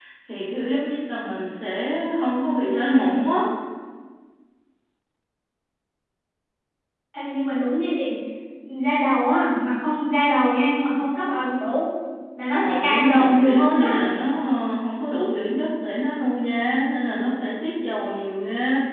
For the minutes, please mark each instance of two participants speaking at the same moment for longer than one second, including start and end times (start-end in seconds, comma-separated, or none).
12.6-13.9